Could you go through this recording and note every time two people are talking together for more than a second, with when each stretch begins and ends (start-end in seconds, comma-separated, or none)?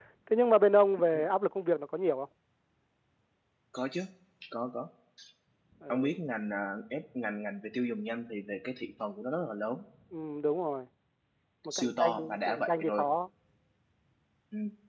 11.7-13.1